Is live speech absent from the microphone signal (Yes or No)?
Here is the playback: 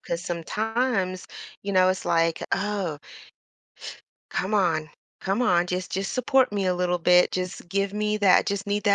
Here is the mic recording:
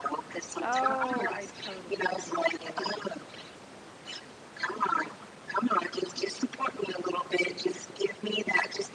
No